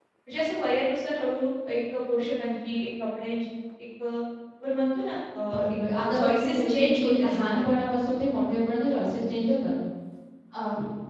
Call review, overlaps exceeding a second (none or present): present